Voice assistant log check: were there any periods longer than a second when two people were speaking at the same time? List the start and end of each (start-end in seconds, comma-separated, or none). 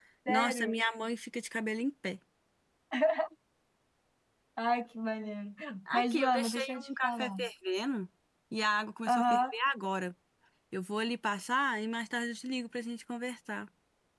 5.9-7.4